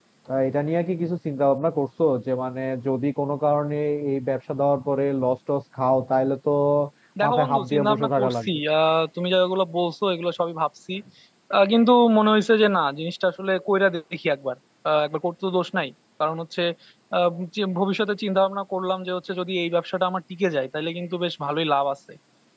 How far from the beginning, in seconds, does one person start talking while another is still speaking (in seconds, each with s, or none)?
7.2 s